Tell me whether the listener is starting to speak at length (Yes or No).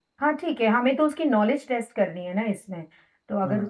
Yes